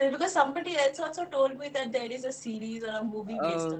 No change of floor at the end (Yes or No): No